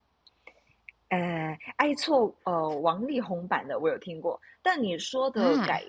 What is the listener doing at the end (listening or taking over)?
listening